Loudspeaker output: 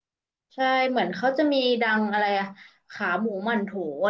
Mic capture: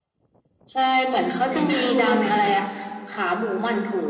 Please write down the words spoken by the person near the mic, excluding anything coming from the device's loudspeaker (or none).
ไหนนะดูตรงไหนเนี่ย